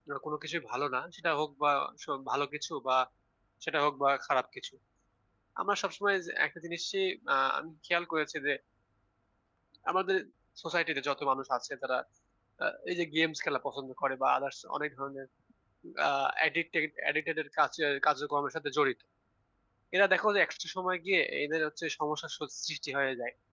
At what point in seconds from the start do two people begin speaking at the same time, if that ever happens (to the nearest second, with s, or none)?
none